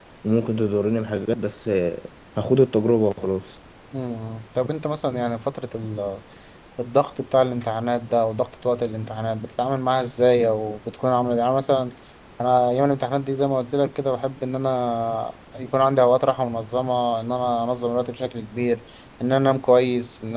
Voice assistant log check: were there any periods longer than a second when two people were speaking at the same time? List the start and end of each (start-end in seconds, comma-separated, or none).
none